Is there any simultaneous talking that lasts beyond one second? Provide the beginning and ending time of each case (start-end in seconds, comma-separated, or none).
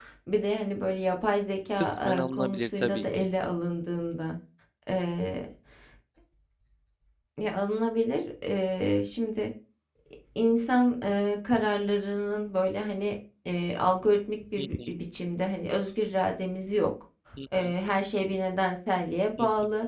1.8-3.3